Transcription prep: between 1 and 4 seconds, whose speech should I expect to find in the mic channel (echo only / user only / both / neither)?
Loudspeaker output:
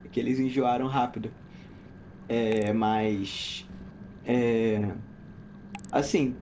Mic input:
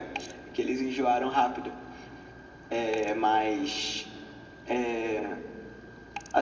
echo only